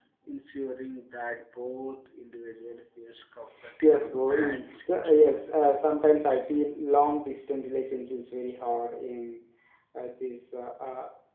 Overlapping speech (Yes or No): Yes